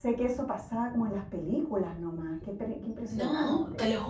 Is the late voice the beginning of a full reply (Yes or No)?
Yes